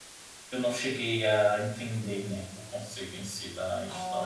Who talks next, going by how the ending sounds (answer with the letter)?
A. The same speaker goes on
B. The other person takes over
B